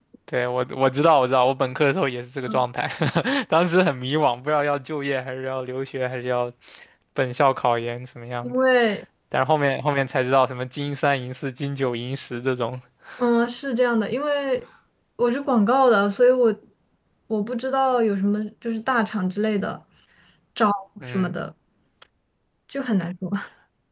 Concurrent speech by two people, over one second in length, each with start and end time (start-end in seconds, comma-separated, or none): none